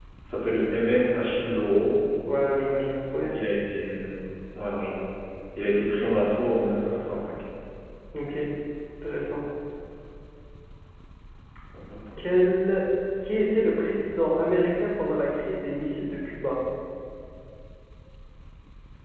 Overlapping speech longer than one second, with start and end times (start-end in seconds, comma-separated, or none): none